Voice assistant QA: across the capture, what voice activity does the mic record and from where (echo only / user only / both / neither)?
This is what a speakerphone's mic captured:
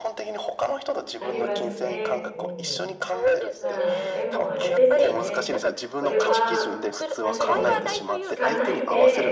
both